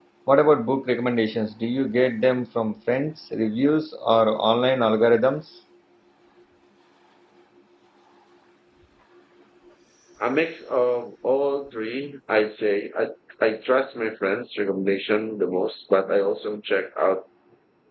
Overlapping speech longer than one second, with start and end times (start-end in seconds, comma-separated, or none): none